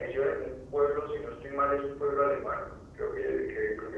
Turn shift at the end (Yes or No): No